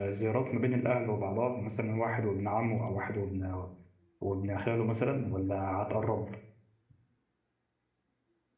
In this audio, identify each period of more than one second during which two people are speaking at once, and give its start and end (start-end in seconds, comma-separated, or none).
none